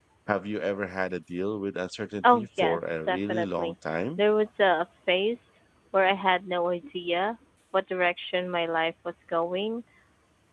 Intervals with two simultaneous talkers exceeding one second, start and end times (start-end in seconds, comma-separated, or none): 2.3-3.7